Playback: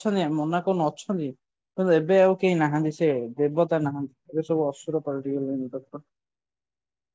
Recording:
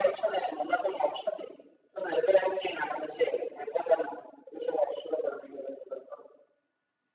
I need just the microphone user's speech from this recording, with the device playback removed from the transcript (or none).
none